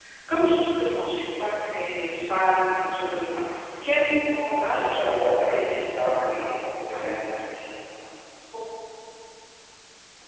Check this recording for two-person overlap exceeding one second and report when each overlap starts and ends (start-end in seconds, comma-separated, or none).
4.7-6.4